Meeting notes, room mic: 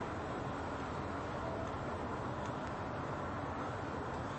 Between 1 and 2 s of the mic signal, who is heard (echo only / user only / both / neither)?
neither